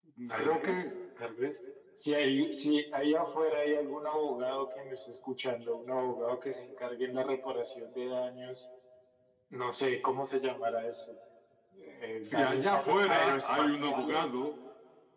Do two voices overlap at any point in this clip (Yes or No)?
Yes